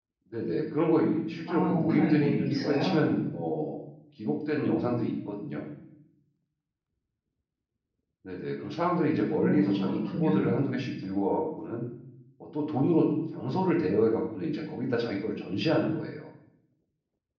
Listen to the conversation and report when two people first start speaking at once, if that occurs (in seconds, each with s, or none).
1.5 s